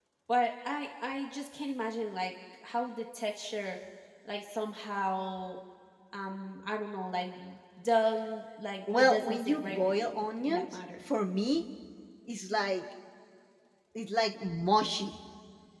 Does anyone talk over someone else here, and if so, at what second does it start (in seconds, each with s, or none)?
8.9 s